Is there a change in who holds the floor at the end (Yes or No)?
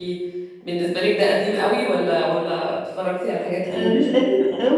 Yes